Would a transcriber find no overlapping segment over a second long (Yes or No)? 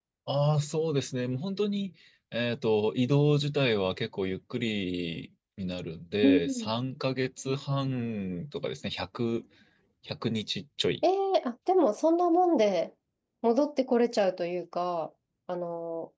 Yes